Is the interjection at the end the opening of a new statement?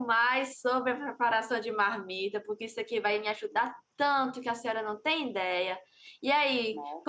No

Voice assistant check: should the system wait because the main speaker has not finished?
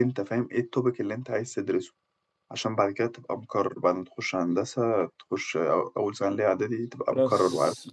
No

